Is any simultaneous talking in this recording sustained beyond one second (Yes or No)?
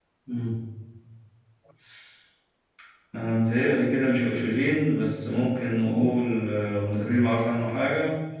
No